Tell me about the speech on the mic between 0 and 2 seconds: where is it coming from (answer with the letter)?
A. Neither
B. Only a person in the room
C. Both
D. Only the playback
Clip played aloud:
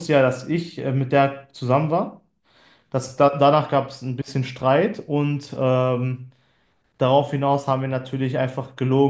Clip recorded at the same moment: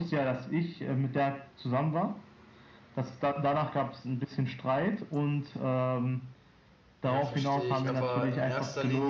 D